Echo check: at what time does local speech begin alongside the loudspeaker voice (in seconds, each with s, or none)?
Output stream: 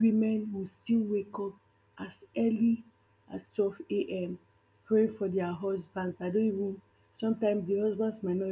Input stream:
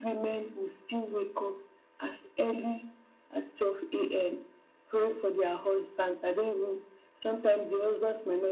none